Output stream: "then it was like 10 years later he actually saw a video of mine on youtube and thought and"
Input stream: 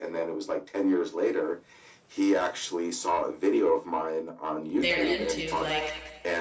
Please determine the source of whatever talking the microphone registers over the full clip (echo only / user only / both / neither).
both